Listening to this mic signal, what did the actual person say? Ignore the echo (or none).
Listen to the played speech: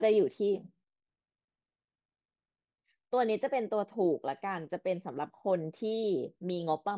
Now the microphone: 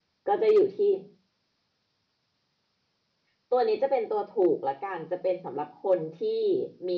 none